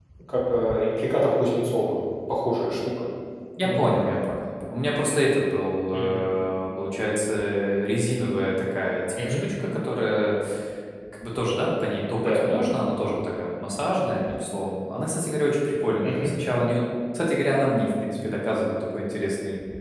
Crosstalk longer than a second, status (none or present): none